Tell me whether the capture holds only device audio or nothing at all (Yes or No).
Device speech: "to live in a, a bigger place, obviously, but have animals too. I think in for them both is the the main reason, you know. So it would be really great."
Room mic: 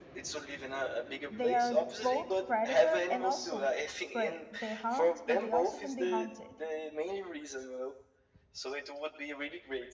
No